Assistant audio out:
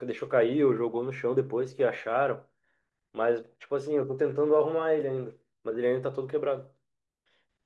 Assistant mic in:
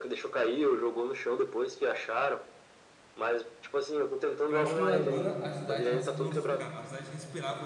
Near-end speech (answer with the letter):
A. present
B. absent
A